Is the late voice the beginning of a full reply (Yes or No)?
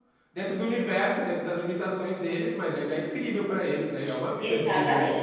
Yes